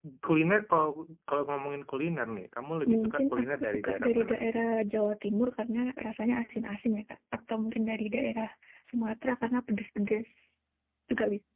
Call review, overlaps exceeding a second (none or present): present